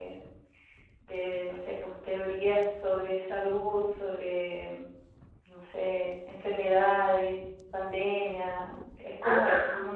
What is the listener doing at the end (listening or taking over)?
listening